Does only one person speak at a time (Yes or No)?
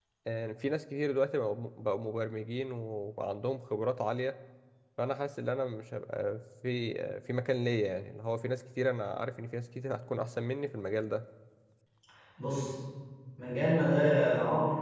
Yes